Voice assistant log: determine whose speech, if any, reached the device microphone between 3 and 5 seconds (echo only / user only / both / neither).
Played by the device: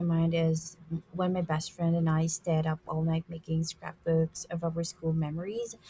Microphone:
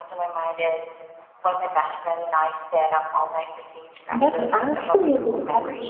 both